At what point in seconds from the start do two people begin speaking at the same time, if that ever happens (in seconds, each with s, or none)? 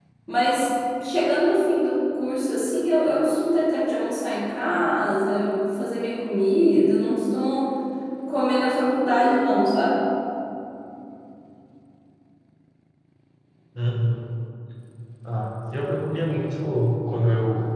none